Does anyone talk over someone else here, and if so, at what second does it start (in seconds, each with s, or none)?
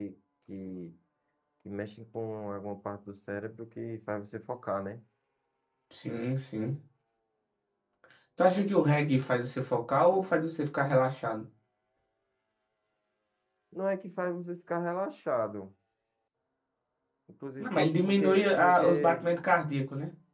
17.6 s